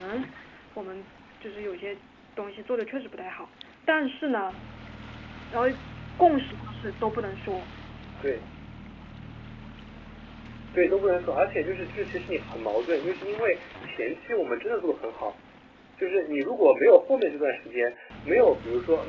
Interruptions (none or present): none